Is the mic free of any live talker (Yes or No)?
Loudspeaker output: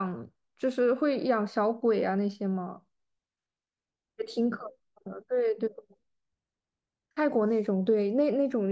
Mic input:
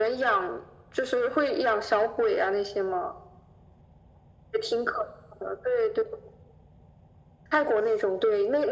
Yes